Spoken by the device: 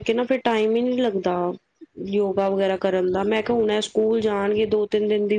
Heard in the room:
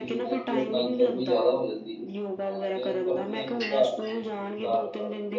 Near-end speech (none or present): present